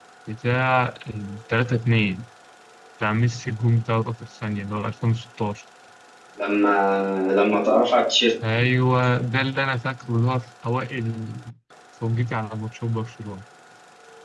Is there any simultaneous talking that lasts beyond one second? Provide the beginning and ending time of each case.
none

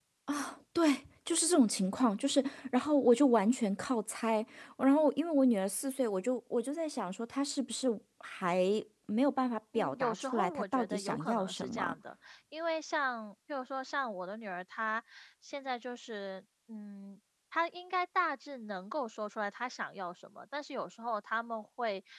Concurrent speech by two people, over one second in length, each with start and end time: 9.7-11.9

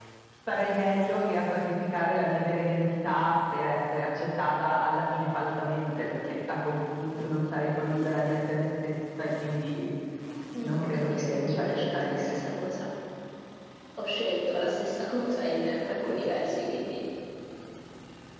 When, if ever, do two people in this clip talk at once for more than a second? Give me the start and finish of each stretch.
10.7-12.4

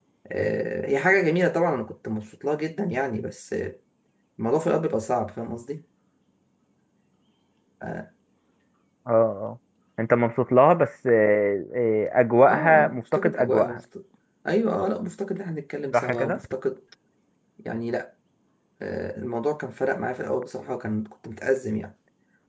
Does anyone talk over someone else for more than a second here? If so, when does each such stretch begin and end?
12.5-13.8

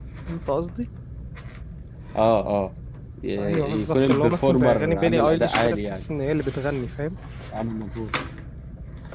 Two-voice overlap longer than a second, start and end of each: 3.4-6.0

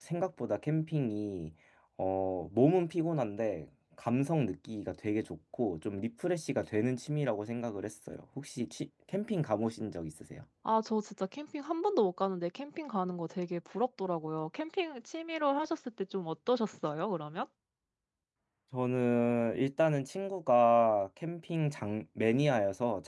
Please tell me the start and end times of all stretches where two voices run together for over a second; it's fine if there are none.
none

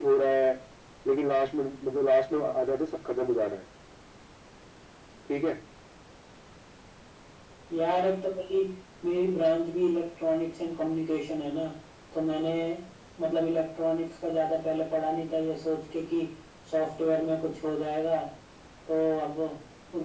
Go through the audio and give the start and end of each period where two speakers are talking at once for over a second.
none

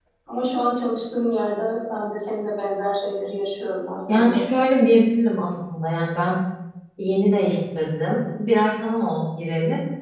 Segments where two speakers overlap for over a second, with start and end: none

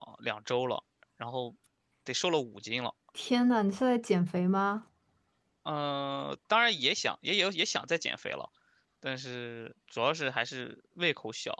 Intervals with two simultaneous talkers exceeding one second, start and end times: none

